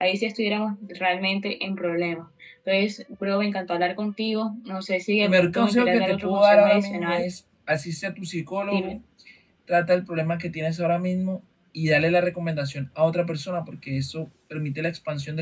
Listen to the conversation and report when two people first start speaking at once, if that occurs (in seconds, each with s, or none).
5.2 s